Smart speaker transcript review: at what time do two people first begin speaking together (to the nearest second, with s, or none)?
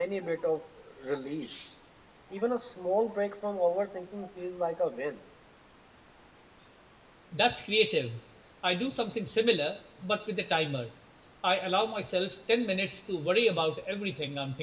none